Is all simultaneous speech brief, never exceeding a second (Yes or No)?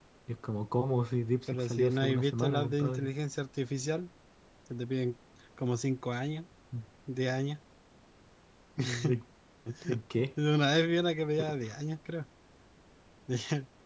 No